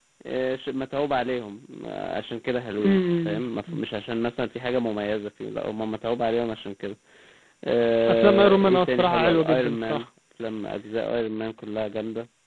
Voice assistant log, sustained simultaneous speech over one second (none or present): present